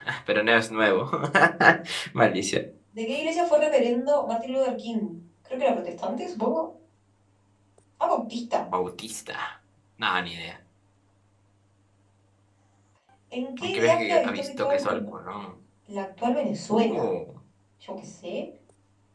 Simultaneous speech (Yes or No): Yes